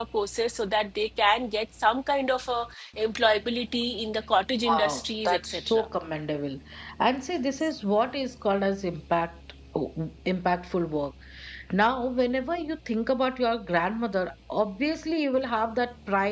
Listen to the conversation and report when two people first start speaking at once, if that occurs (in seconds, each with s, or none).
4.7 s